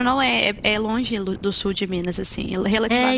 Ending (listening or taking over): taking over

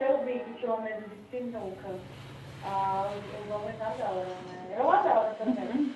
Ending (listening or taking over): taking over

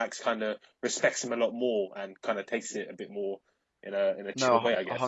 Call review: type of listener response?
taking over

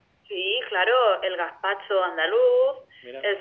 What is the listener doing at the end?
listening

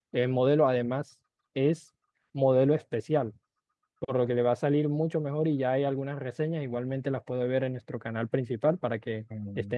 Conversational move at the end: taking over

